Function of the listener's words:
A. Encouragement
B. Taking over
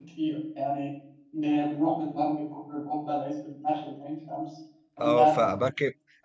B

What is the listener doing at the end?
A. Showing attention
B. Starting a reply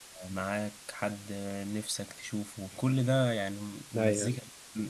A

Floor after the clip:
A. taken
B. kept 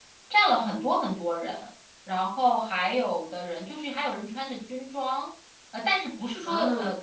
B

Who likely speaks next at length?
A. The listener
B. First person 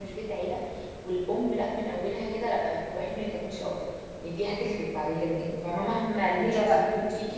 B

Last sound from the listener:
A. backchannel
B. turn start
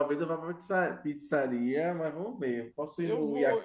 A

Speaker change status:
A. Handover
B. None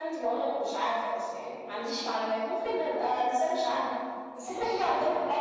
B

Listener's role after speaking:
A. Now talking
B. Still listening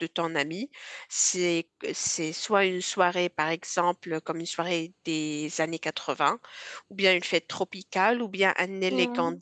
B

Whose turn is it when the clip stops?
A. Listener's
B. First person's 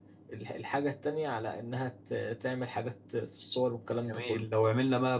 A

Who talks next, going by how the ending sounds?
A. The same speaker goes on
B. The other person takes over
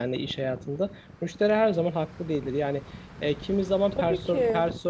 A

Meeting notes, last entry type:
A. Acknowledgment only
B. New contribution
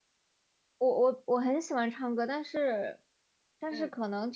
A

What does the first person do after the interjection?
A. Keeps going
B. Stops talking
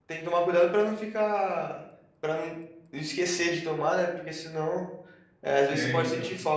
A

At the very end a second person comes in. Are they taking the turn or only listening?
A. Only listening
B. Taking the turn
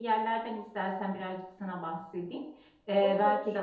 A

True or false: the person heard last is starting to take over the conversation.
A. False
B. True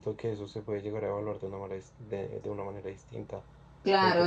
B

